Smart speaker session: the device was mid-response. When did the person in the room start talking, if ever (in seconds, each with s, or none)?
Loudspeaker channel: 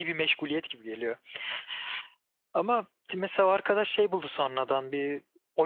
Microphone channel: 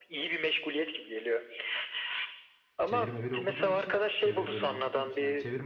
2.8 s